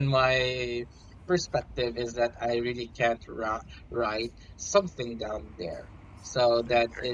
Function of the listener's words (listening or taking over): listening